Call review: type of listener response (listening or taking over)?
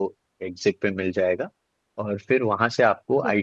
listening